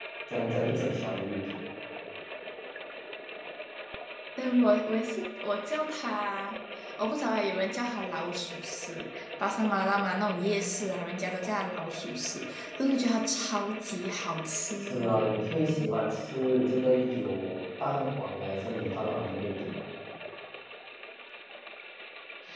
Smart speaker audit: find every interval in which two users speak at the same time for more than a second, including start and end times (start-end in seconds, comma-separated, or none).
none